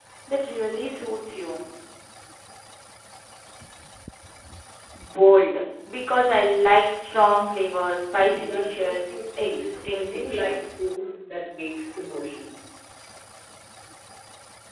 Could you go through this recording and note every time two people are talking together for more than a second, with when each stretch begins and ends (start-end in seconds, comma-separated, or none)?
8.1-10.7